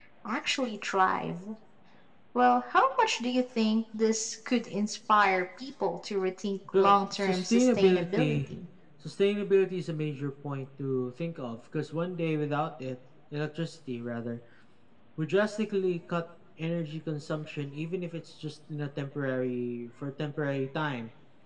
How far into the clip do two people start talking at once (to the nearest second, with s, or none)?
7 s